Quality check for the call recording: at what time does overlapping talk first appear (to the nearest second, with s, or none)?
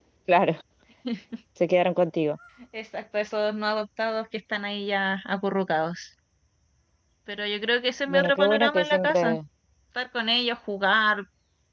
8 s